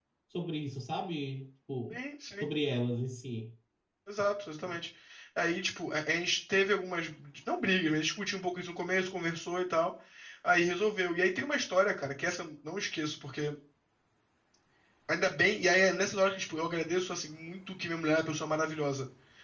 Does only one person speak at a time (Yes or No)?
Yes